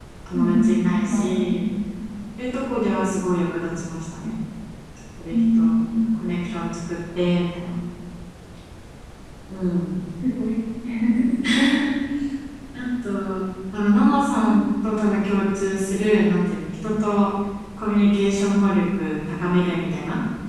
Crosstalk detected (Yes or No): Yes